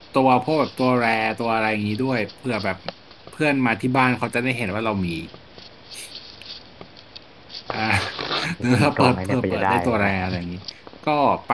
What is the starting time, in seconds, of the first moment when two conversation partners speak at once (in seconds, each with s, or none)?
8.6 s